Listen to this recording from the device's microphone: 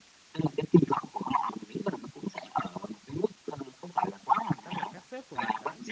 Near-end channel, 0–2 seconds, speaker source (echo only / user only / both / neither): echo only